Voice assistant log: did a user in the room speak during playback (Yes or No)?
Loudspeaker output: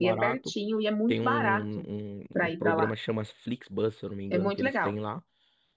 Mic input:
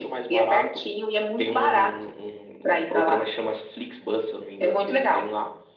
No